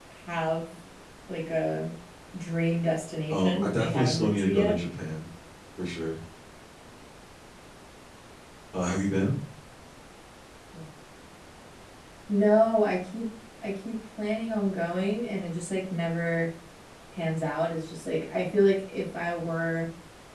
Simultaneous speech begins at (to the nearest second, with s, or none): 3 s